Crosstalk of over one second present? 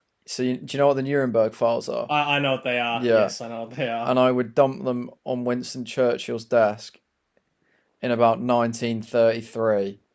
No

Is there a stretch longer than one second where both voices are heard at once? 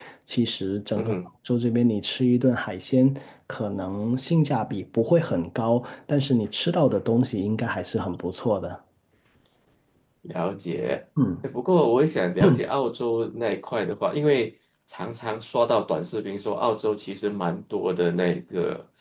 No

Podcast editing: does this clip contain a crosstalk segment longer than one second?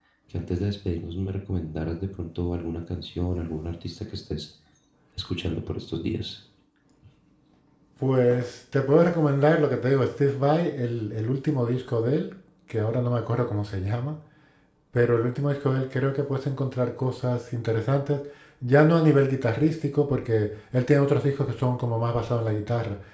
No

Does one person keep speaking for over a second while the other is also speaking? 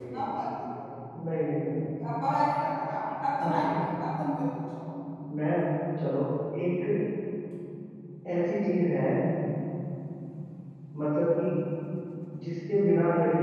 No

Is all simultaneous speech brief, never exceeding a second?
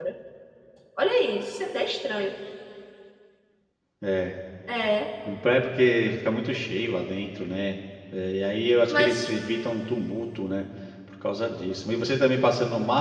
Yes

